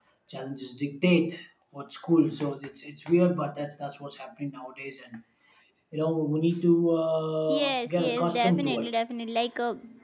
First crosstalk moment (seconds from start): 7.5 s

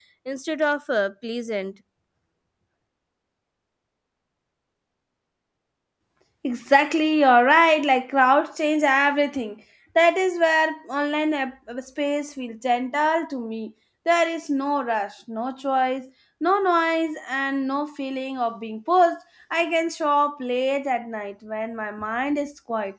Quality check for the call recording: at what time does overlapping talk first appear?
none

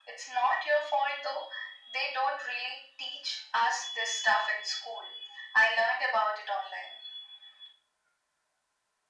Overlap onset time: none

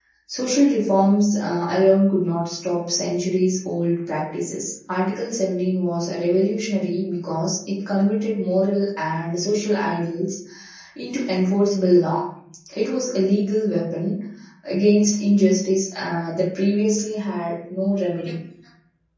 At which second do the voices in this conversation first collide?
none

